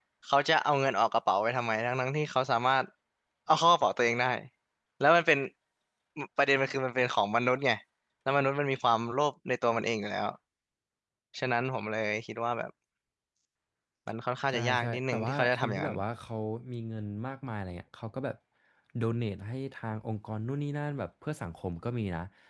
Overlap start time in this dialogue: 14.5 s

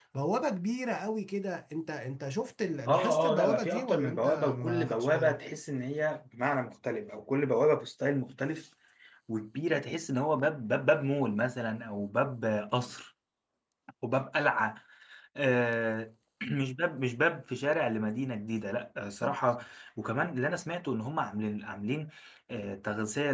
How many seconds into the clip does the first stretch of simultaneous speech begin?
2.9 s

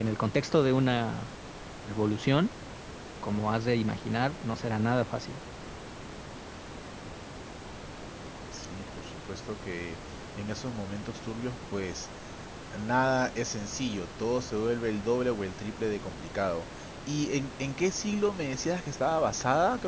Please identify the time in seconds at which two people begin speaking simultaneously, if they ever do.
none

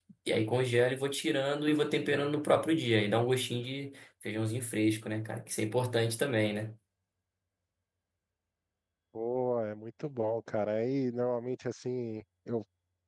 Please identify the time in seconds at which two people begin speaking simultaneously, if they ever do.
none

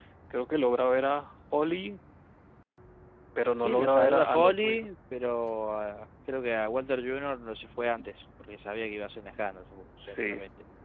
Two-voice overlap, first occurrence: 3.6 s

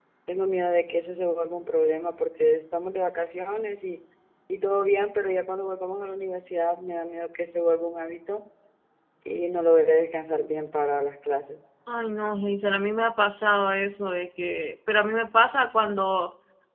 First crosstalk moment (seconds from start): none

